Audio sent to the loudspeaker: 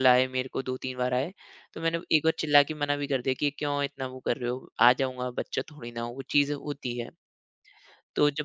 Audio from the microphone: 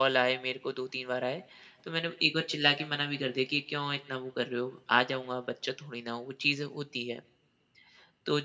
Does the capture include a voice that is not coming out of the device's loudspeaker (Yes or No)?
No